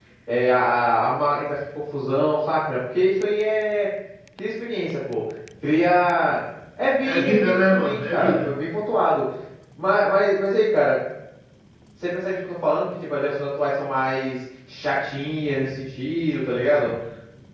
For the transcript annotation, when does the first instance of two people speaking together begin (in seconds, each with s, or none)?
7.0 s